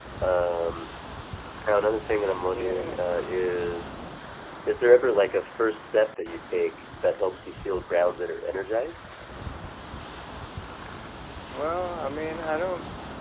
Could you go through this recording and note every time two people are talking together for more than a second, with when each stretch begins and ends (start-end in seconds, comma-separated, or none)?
none